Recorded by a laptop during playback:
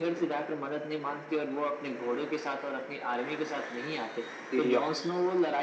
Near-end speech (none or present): present